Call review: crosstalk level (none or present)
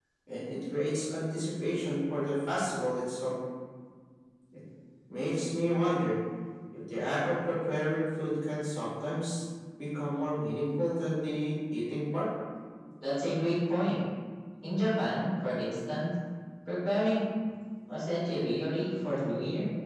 none